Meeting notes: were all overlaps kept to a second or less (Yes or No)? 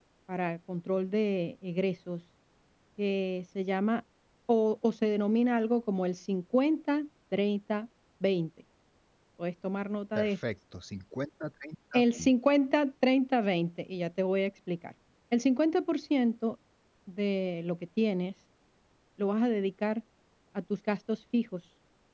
Yes